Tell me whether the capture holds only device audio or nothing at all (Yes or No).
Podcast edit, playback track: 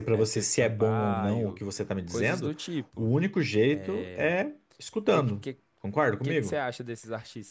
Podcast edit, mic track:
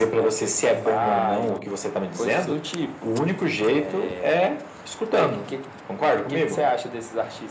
Yes